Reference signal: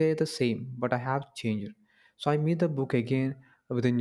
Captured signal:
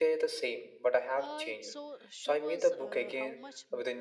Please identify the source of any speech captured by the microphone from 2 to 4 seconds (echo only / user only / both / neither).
both